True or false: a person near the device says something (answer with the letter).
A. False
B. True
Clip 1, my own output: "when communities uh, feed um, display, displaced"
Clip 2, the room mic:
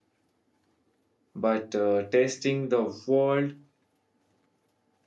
B